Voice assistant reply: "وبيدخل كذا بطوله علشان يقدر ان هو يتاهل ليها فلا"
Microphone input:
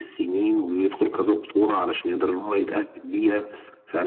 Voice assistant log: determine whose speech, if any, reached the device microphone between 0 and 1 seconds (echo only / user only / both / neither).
echo only